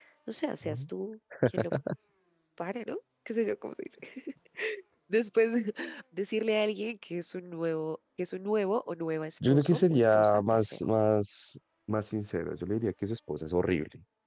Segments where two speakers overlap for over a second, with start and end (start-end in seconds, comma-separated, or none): 9.5-10.8